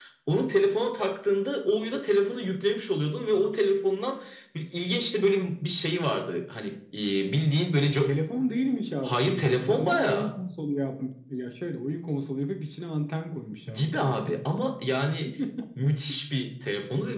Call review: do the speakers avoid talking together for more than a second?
No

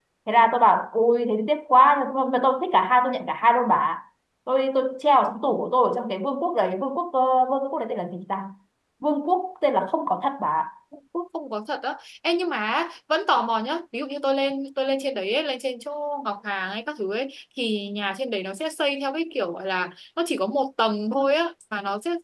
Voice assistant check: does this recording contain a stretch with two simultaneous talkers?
No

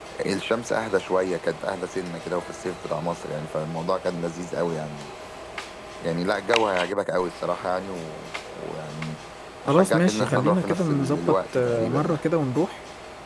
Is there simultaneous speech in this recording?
Yes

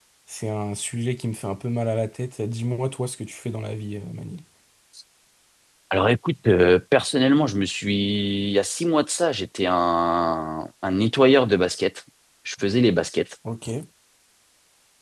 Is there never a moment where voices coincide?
Yes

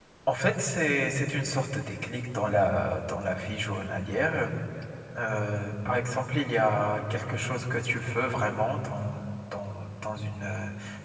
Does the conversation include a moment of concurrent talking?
No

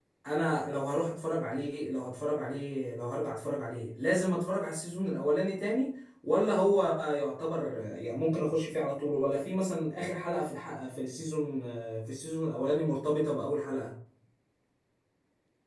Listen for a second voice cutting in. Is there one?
No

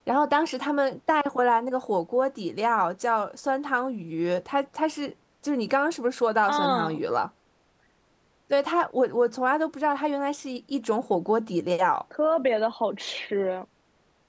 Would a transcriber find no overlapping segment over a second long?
Yes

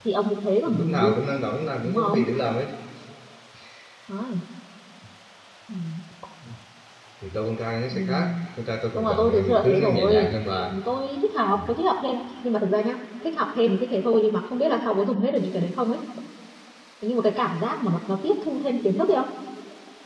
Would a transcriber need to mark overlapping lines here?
Yes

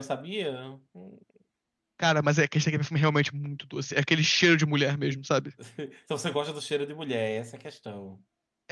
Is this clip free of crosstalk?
Yes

